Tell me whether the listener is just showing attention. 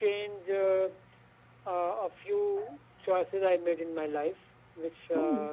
Yes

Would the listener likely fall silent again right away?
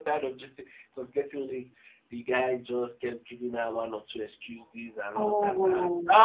Yes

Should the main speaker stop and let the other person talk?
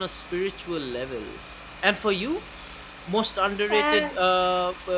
No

